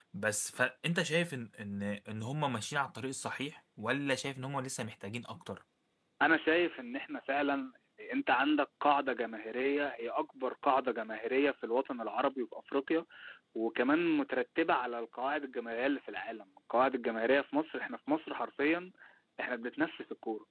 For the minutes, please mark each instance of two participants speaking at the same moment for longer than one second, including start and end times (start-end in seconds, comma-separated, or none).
none